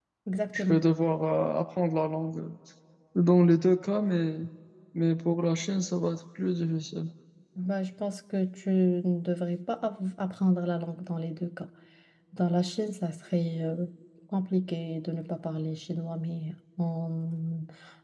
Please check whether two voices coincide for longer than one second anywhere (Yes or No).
No